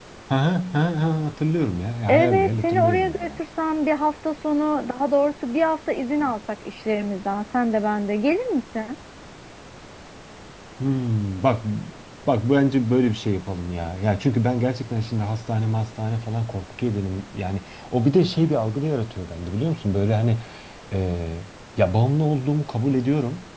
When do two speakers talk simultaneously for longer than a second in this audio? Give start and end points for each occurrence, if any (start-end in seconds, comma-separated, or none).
2.1-3.3